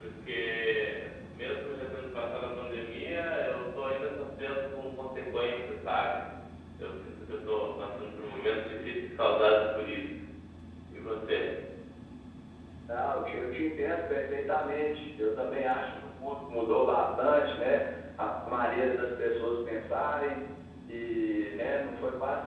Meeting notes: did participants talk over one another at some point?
No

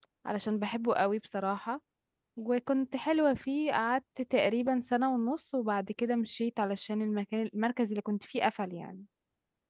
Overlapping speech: No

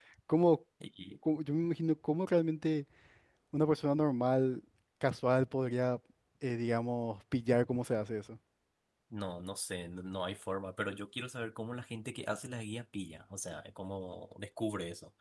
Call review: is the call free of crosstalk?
Yes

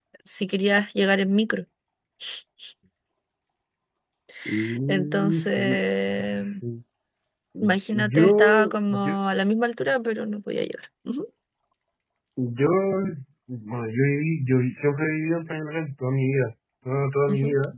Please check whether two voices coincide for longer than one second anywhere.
Yes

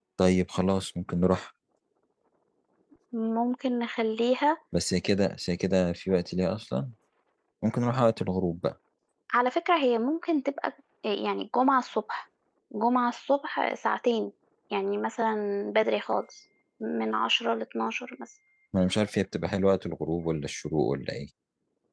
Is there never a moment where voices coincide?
Yes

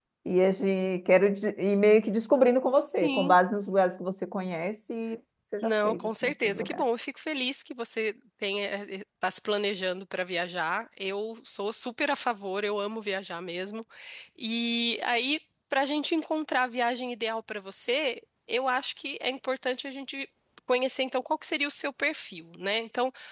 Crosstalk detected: Yes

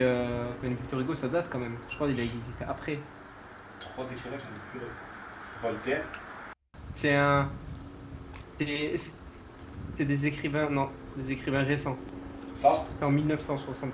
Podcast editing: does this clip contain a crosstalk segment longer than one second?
No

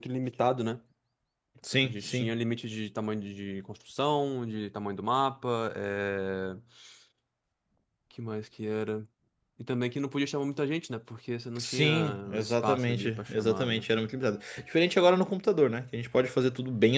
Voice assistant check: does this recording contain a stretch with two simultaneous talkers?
Yes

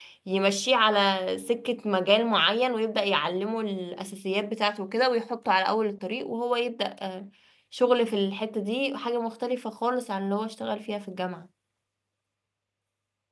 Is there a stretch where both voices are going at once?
No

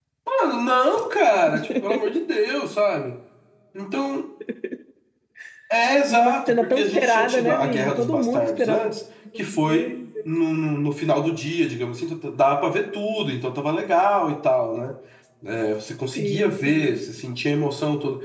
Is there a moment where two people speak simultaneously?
Yes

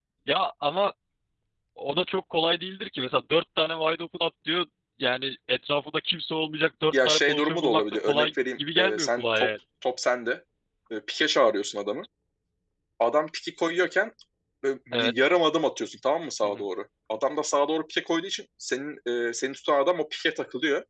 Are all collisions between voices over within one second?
No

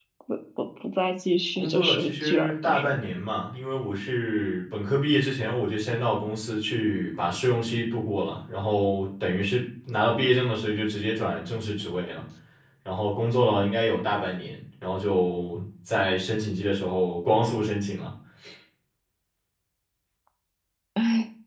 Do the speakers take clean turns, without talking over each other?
No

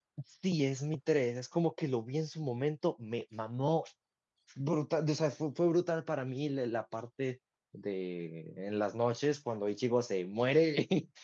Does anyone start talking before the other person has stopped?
No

